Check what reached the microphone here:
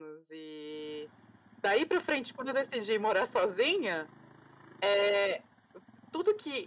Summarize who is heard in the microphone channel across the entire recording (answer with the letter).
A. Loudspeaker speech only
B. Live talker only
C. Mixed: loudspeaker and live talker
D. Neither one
A